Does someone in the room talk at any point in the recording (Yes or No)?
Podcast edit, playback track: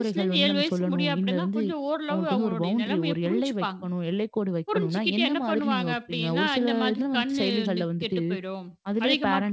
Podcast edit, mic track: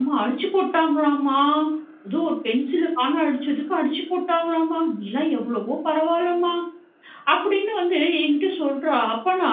Yes